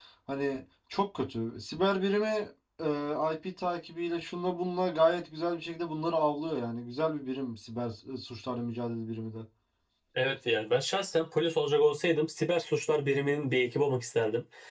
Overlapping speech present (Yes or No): No